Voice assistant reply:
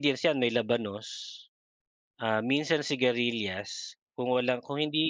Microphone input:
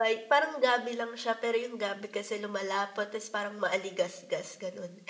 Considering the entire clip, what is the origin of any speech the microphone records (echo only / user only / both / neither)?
user only